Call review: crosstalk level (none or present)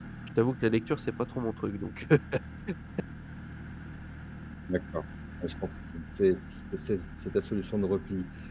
none